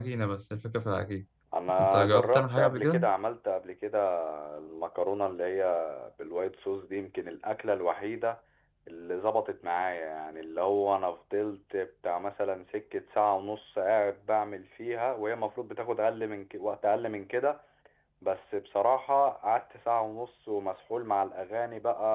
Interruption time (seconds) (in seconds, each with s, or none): 1.8 s